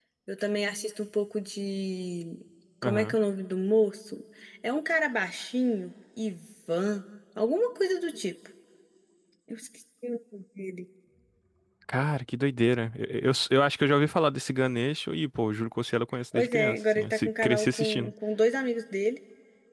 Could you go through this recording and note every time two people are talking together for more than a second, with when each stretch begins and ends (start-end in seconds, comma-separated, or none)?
16.3-18.1